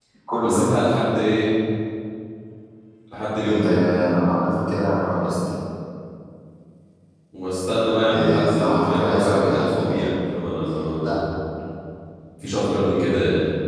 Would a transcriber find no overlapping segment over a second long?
No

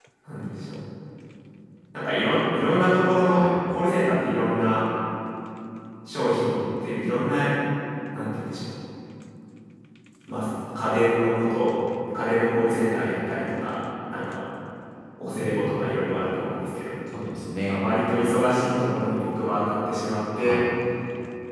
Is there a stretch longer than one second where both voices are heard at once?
No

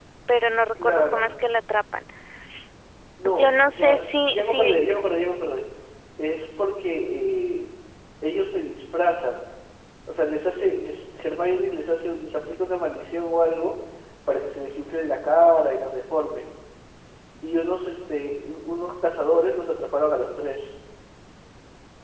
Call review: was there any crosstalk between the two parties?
Yes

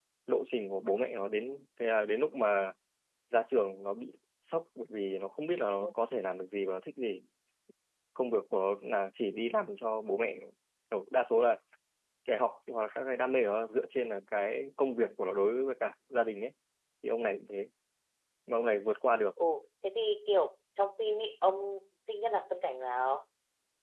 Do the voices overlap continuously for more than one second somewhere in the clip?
No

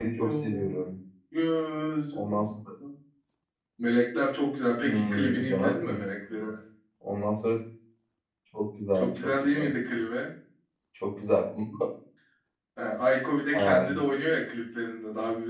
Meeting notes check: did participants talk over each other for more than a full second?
Yes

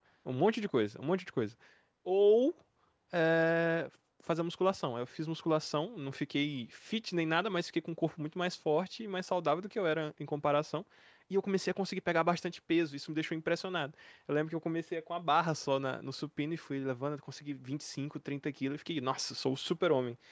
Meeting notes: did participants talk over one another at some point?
No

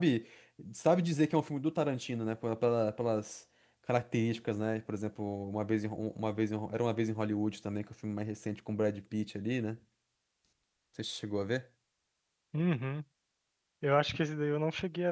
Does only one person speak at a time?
Yes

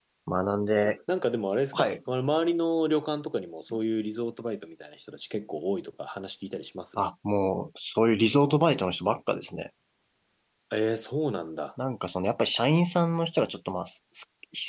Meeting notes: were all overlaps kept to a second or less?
Yes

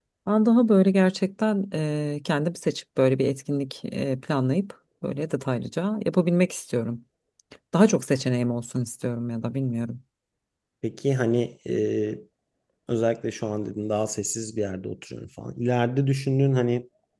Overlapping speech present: No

